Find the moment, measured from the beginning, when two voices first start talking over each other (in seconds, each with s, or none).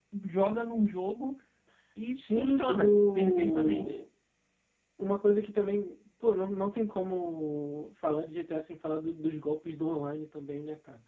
2.1 s